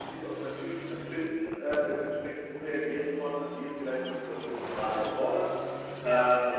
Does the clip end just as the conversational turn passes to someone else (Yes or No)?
No